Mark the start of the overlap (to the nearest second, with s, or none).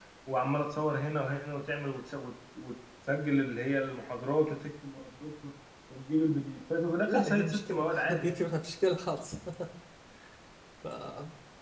7 s